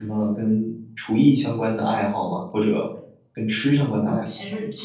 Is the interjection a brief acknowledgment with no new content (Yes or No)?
No